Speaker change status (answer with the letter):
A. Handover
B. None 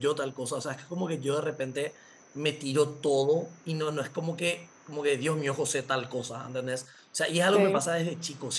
B